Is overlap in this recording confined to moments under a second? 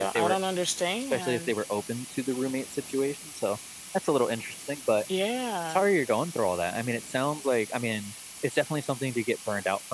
Yes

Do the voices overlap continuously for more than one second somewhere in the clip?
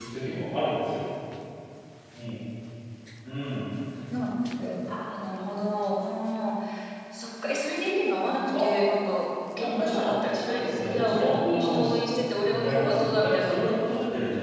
Yes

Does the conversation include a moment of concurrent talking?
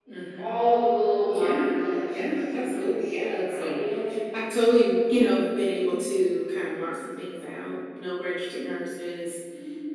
Yes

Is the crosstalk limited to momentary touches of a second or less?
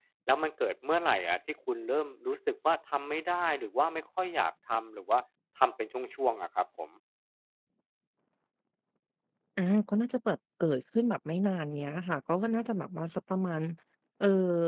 Yes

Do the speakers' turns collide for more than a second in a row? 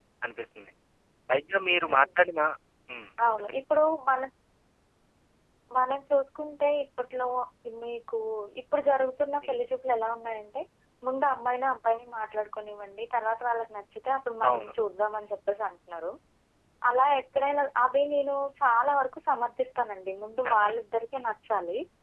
No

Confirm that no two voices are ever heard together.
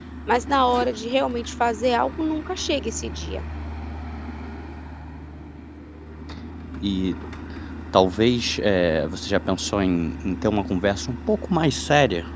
Yes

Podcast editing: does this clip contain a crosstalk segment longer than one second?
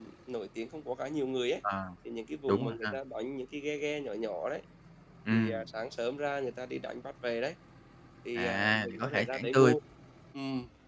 Yes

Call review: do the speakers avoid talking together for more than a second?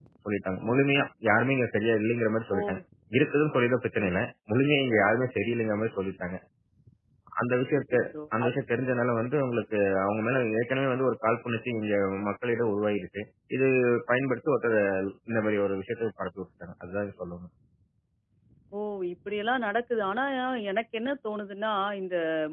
Yes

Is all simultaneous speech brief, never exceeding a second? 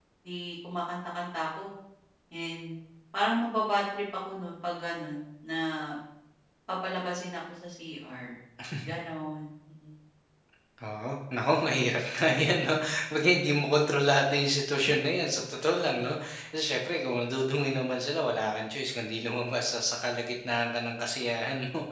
Yes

